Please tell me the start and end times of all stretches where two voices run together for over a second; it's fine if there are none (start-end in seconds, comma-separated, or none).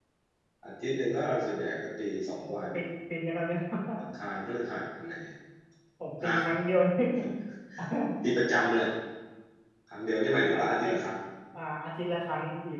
none